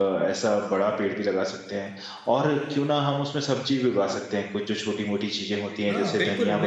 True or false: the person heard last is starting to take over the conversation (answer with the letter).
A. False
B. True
B